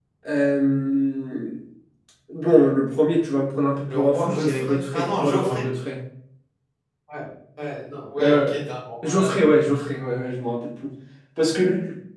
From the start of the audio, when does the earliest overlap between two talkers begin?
3.8 s

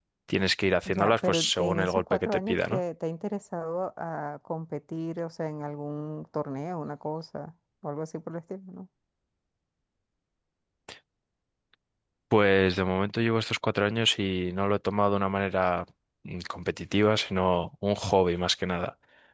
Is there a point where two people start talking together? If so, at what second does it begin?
1.0 s

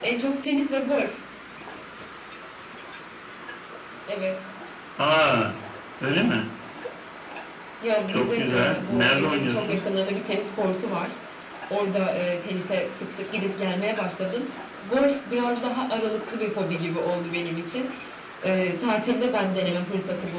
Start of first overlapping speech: 8.1 s

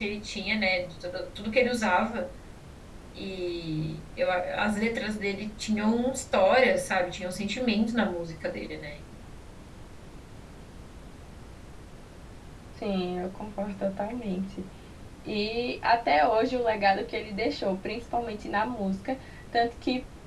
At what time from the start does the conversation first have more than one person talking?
none

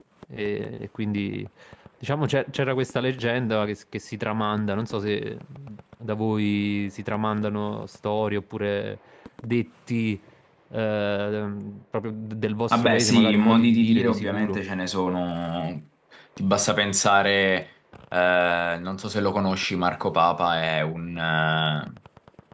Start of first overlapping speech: 12.7 s

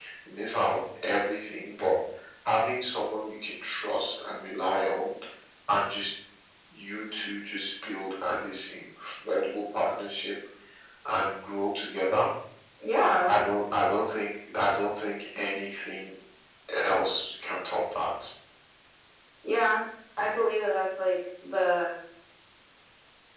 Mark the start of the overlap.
none

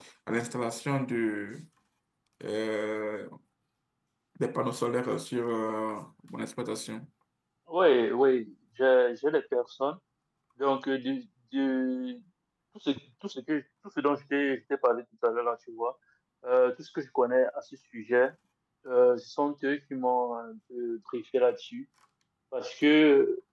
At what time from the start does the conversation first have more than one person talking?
none

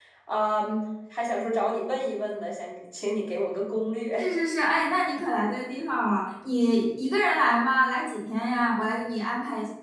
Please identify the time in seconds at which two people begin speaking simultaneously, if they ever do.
none

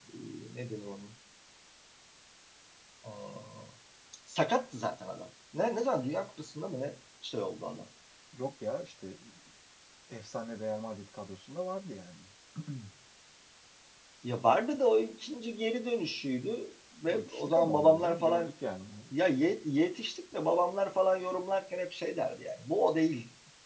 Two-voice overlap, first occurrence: 17.1 s

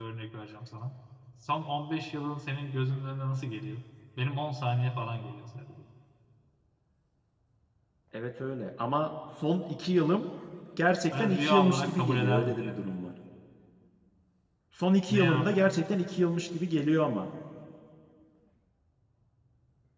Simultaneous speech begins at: 11.2 s

